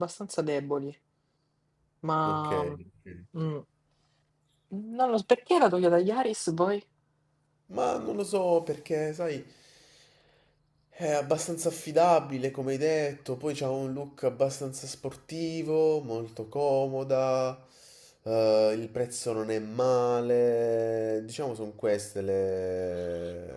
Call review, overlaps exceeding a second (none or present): none